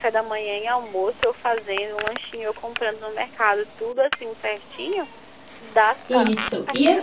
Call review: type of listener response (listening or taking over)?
taking over